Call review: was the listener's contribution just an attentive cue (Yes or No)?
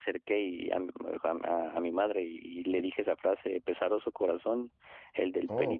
Yes